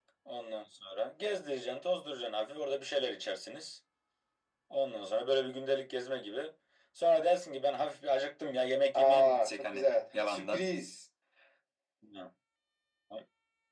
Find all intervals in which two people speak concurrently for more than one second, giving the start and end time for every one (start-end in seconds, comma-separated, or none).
8.9-10.7